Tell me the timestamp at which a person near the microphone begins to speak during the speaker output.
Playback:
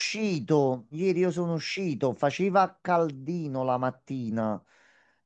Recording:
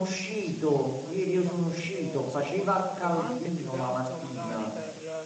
1 s

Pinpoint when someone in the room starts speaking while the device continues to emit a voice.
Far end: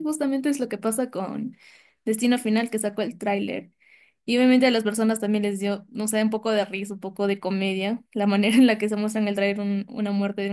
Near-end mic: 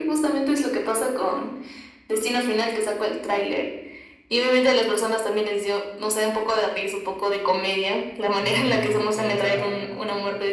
8 s

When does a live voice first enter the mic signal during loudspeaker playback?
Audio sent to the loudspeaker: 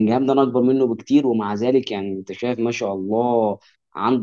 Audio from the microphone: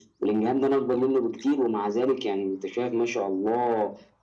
none

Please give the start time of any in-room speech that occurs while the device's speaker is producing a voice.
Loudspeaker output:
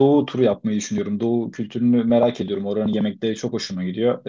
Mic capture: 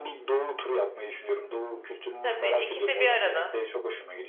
2 s

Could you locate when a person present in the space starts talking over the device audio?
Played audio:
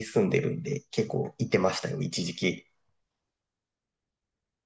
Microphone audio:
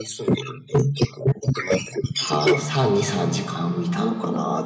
2 s

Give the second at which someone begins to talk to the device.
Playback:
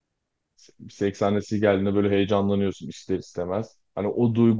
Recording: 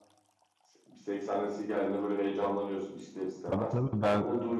4 s

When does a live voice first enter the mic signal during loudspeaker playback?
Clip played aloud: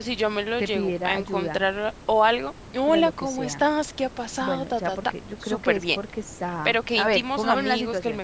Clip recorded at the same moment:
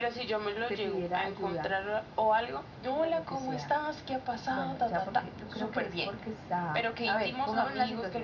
none

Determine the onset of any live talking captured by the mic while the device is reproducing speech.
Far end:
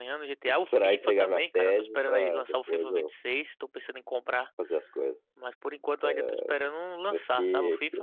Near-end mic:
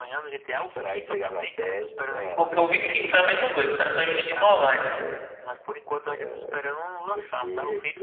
2 s

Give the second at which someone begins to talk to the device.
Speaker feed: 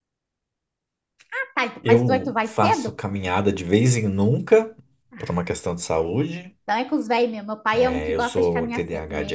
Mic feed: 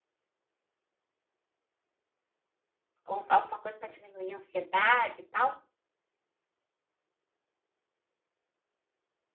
3 s

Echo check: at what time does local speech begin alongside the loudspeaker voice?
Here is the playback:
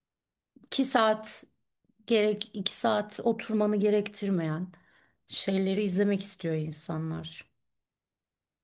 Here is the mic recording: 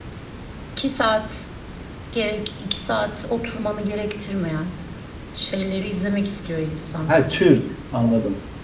7 s

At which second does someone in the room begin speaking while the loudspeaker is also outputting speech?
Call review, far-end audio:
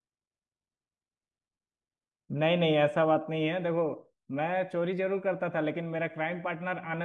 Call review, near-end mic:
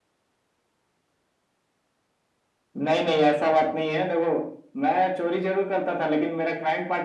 none

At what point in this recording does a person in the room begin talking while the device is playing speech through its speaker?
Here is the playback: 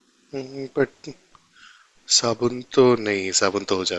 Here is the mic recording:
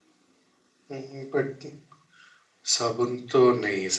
none

